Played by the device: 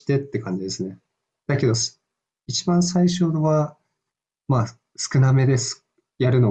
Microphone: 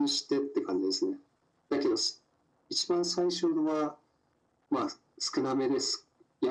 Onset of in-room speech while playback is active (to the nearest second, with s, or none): none